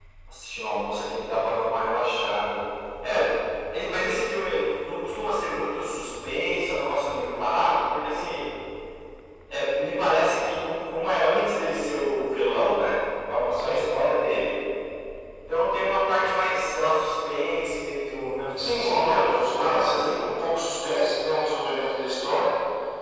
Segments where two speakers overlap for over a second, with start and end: 18.6-20.3

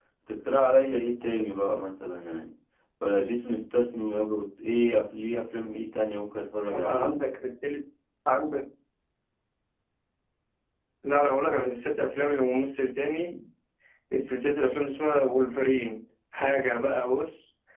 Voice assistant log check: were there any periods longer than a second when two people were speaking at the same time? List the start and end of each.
none

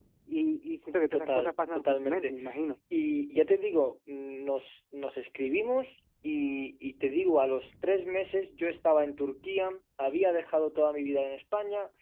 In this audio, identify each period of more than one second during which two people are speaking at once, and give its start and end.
1.1-2.4

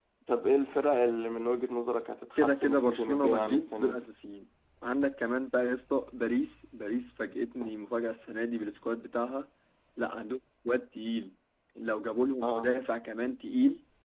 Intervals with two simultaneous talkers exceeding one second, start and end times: 2.4-4.1

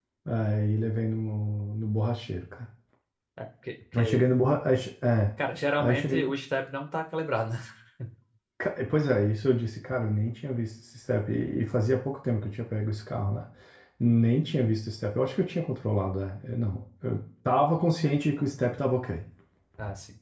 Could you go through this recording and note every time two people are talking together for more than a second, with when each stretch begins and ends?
none

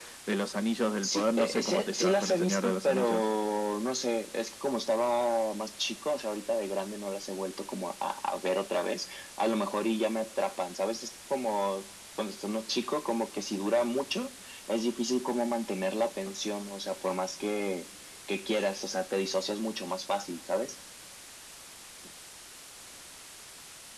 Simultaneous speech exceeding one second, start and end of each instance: 1.0-3.2

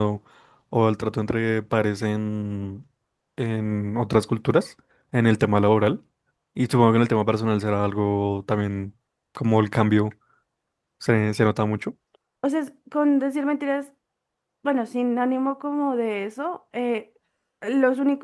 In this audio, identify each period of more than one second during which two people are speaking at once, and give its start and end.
none

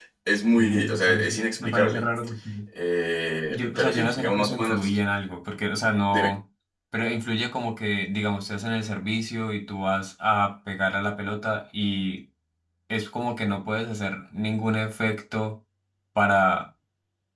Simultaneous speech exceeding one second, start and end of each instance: 0.6-2.1, 3.5-5.0

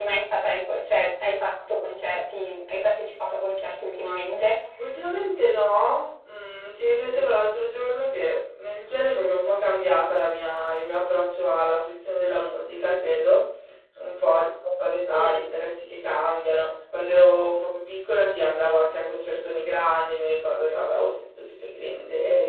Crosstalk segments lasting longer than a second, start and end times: none

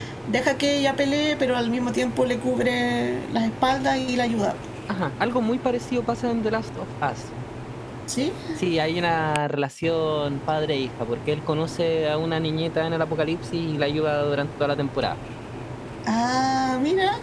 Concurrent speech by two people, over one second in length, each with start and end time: none

